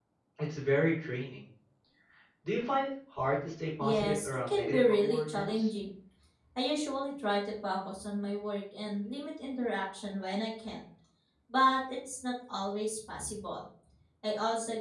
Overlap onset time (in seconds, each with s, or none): 3.8 s